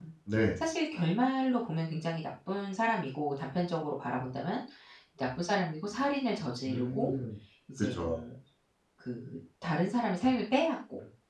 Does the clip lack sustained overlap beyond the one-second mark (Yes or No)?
Yes